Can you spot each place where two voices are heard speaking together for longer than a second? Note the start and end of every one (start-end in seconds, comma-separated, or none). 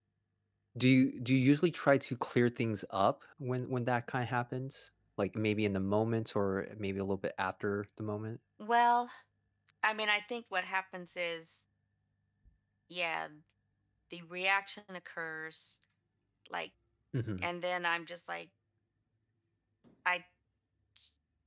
none